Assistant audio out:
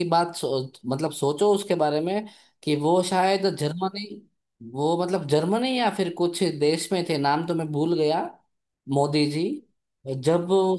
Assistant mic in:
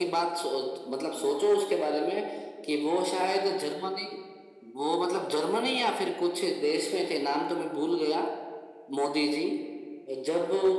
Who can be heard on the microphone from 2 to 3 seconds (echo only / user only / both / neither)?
echo only